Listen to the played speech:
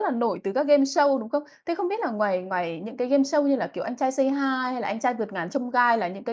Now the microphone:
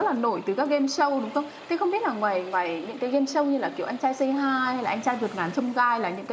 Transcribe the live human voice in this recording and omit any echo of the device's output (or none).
none